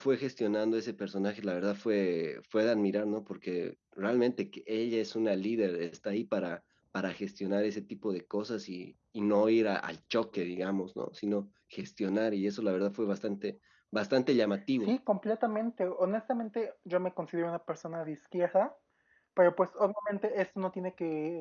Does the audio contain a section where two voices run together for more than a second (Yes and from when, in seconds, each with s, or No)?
No